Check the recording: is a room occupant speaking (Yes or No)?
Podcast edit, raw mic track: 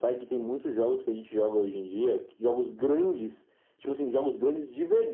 No